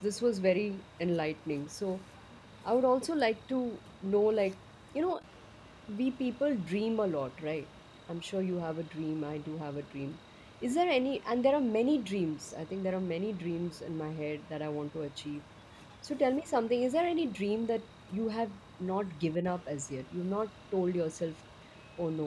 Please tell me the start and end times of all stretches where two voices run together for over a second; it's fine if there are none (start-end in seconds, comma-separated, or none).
none